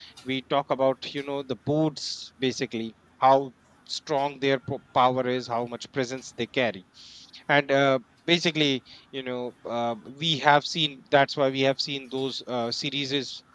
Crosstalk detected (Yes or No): No